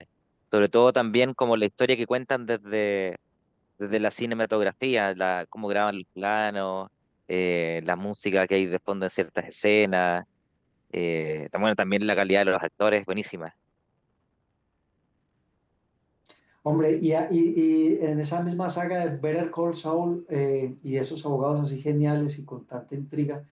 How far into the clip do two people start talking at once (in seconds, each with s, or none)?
none